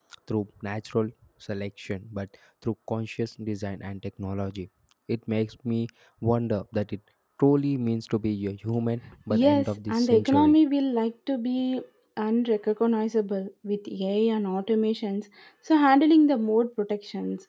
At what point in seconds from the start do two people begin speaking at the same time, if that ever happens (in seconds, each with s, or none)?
9.3 s